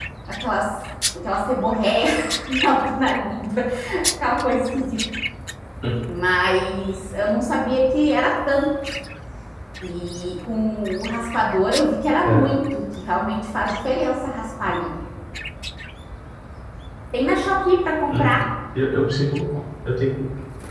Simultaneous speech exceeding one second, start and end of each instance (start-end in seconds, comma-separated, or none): none